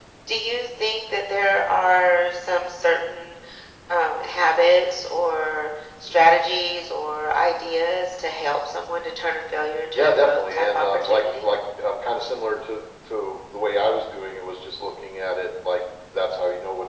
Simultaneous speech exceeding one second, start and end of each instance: 9.9-11.5

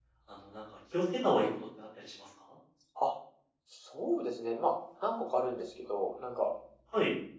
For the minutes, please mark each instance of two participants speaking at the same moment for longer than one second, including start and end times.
none

